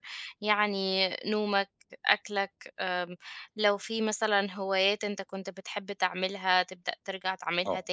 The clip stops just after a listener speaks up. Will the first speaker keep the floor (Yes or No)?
Yes